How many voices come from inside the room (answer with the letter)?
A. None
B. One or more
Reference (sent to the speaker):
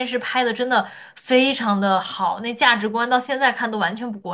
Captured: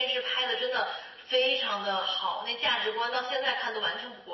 A